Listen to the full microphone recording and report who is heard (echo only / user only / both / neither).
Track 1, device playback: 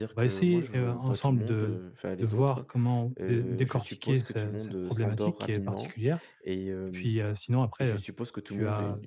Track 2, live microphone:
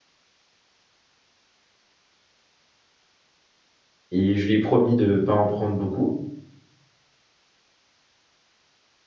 user only